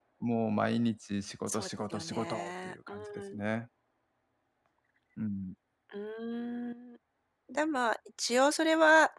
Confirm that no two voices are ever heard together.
No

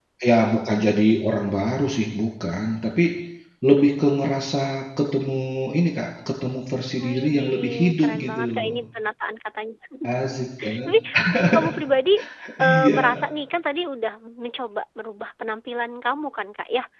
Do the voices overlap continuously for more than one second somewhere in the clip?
Yes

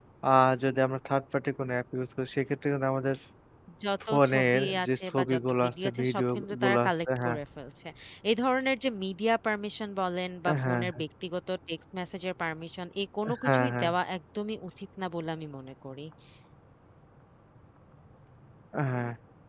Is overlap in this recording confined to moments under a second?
No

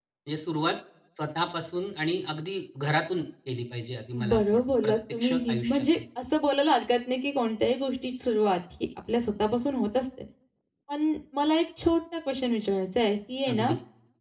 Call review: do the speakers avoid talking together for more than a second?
No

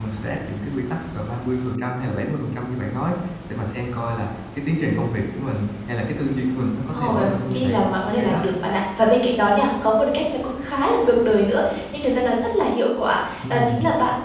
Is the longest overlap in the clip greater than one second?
Yes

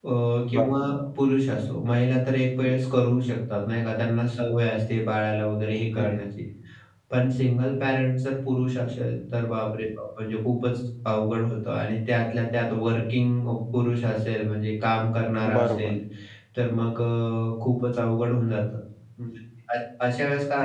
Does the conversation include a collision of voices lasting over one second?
No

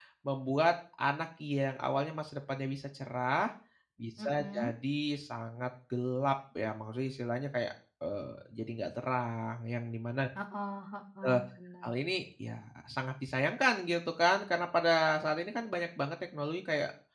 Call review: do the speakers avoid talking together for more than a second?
Yes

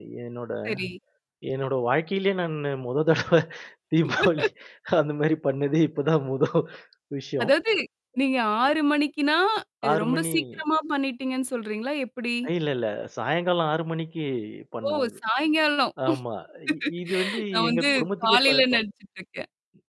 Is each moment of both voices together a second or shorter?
No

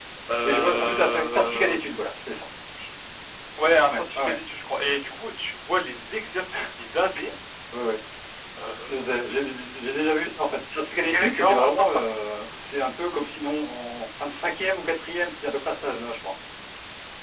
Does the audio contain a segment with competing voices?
Yes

